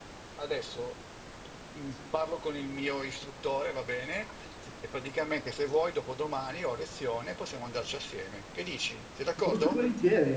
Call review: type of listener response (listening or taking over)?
taking over